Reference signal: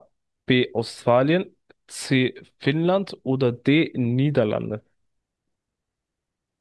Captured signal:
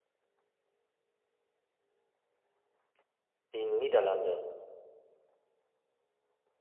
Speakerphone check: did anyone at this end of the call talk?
Yes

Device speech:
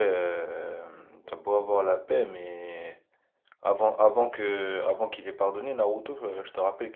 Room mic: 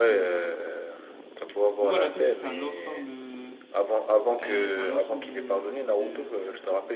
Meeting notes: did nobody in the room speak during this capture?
No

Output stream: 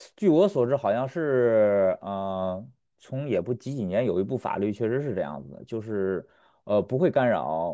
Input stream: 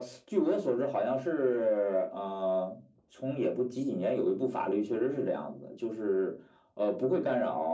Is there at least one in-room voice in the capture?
No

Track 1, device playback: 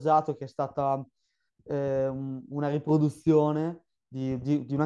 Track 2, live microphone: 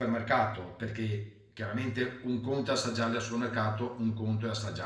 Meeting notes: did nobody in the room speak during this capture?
No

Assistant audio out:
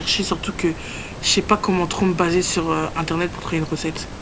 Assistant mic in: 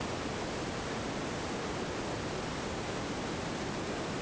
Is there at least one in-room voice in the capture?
No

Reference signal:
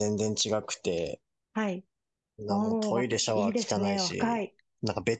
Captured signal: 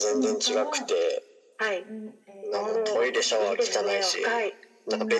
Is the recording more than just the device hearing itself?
Yes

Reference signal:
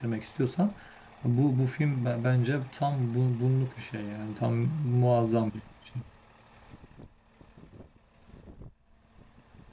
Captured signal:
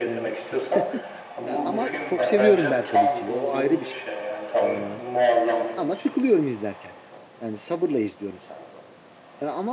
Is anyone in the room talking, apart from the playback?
Yes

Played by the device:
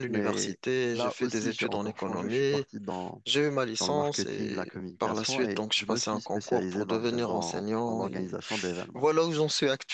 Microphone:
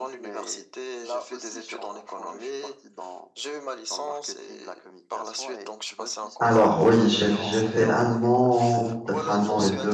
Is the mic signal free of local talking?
No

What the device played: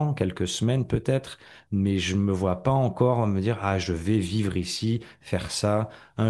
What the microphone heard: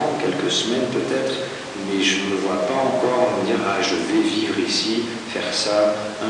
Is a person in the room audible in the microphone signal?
No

